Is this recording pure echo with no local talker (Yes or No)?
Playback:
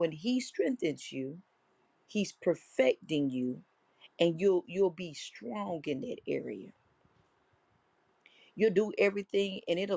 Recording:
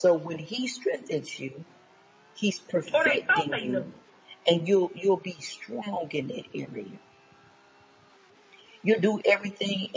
No